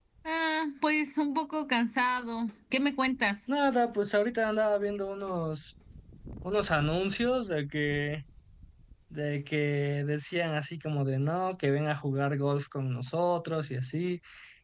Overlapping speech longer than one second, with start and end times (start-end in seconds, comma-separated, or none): none